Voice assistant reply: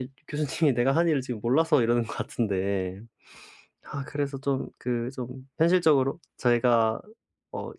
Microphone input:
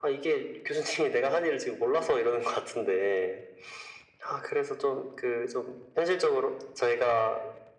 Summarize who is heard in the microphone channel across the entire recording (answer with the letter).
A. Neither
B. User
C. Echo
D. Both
C